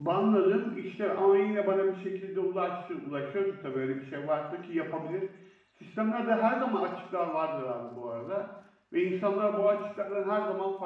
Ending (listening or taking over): listening